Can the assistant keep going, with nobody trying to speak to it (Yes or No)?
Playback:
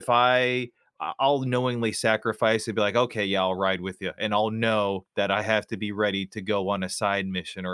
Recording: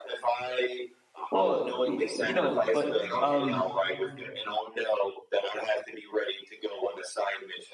No